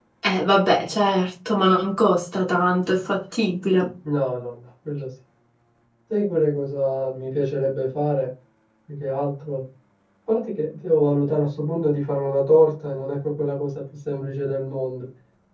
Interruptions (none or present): none